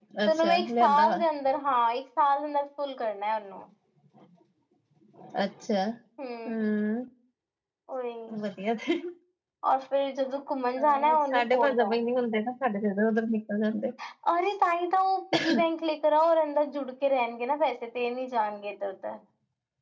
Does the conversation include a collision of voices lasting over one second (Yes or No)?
Yes